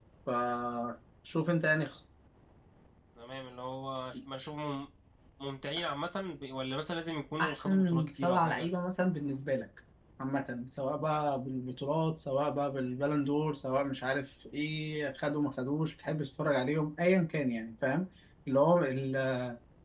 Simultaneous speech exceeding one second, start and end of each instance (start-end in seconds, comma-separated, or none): 7.4-8.7